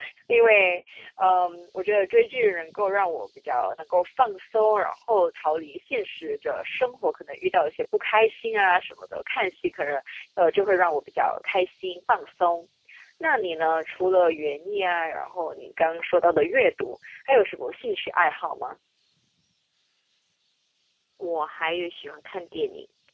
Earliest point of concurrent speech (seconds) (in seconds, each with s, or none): none